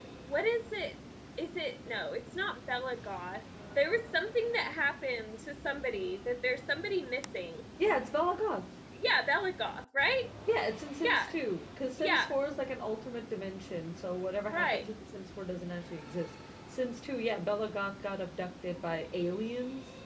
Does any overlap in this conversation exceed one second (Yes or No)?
No